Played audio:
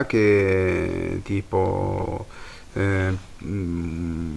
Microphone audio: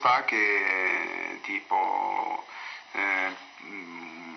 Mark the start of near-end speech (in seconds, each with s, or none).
none